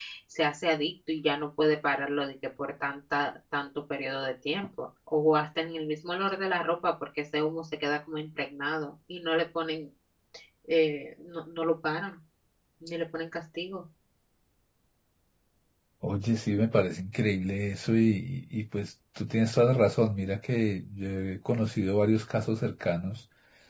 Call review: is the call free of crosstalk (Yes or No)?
Yes